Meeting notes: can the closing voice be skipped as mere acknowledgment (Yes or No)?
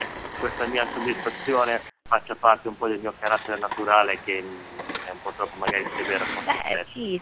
No